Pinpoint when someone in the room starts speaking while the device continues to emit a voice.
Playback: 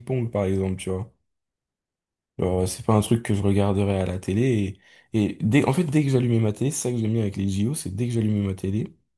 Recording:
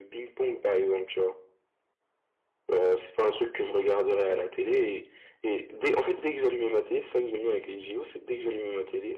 none

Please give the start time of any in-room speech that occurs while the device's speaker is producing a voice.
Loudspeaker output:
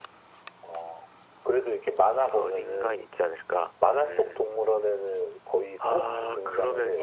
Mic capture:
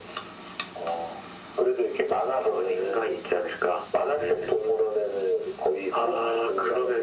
none

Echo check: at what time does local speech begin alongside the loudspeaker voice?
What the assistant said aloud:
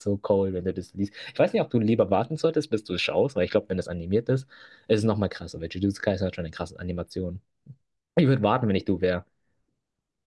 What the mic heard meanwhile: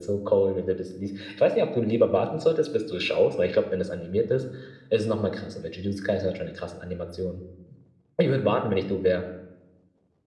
none

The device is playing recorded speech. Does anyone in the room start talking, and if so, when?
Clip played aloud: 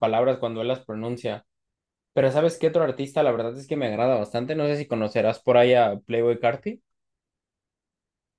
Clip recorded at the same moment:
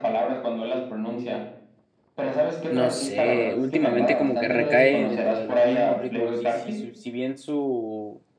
3 s

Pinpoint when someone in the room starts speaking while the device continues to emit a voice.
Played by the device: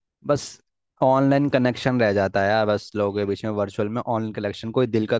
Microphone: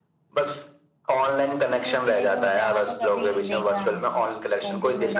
2 s

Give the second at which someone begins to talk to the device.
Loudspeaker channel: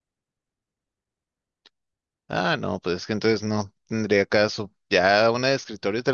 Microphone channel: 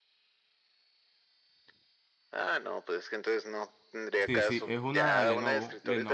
4 s

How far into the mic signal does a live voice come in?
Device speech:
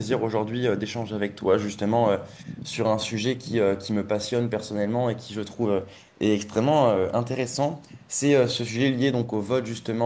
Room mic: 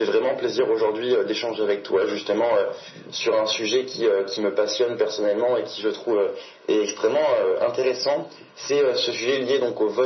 none

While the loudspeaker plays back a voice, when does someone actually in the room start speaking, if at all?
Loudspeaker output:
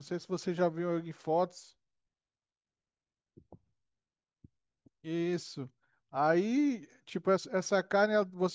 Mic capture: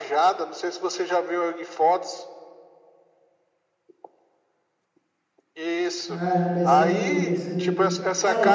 6 s

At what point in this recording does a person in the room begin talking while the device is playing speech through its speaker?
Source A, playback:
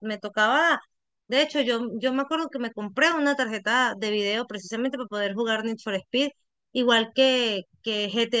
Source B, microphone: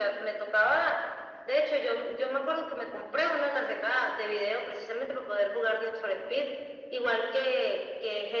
none

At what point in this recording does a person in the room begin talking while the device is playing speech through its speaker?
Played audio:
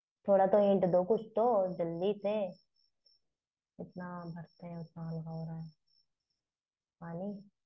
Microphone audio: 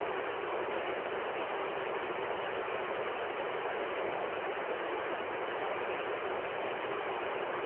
none

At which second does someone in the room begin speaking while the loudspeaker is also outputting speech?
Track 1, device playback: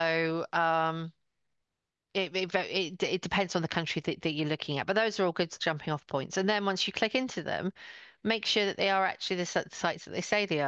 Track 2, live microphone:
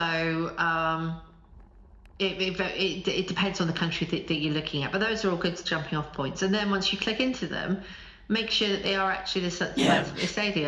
10 s

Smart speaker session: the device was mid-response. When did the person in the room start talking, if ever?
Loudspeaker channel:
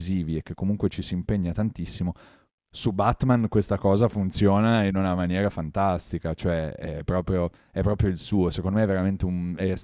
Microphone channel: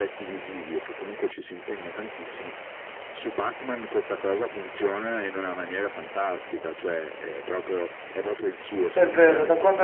9 s

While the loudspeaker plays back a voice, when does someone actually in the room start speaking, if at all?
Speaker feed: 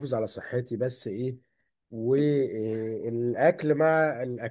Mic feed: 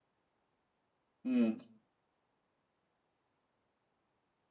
1 s

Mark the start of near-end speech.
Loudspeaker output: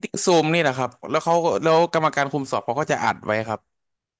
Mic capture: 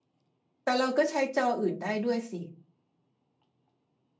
1 s

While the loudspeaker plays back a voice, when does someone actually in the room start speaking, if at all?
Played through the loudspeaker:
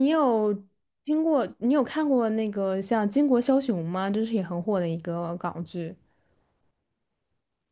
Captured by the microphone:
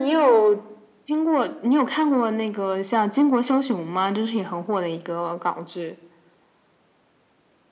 none

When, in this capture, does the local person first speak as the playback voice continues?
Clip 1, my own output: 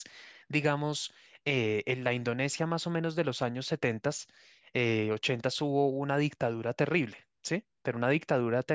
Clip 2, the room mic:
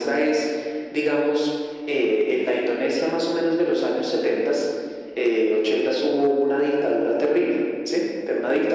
none

